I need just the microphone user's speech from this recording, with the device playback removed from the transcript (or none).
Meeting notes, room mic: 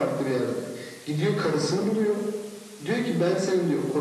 none